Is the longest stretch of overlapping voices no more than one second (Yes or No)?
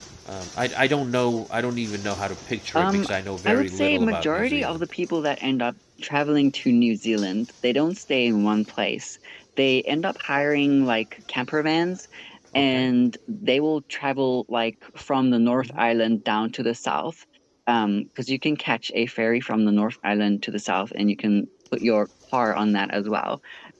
No